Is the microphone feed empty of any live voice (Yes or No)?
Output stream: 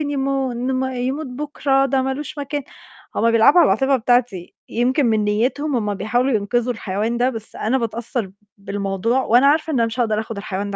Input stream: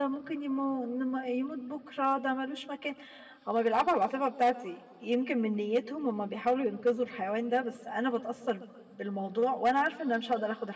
Yes